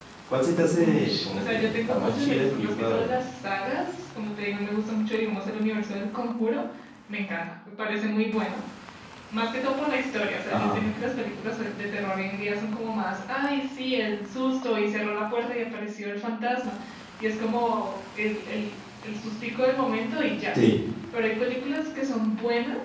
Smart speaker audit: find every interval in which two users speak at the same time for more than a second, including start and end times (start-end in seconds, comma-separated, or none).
0.8-3.0